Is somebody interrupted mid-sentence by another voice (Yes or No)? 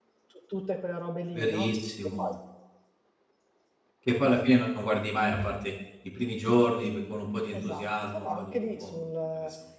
Yes